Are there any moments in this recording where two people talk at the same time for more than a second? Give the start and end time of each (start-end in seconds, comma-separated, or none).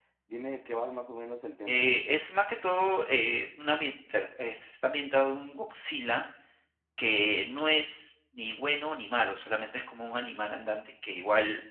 none